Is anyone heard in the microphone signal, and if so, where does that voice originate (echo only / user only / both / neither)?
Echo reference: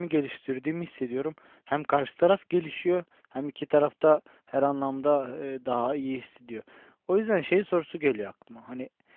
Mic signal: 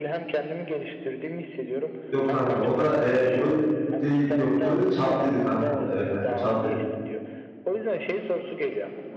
both